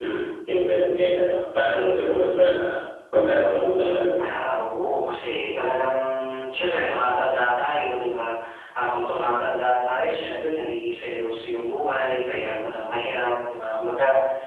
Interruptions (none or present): none